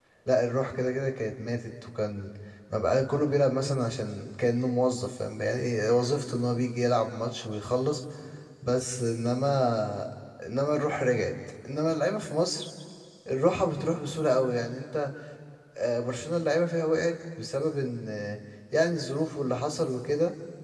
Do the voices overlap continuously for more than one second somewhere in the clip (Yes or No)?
No